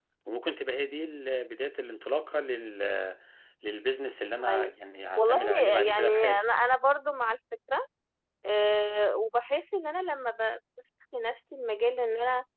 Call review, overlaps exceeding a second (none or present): present